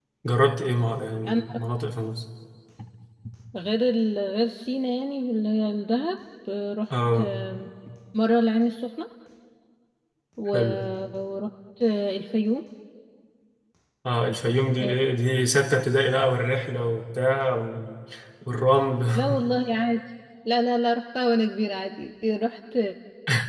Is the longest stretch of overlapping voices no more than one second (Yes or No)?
Yes